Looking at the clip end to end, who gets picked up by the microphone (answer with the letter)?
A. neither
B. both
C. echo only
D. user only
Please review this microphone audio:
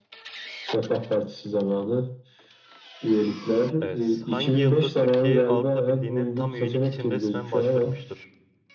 B